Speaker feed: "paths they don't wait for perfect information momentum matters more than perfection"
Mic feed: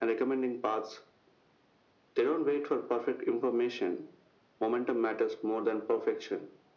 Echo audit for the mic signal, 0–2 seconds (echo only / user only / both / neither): echo only